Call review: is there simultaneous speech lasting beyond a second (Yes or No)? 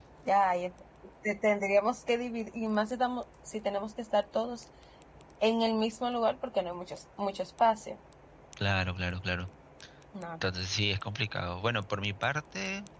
No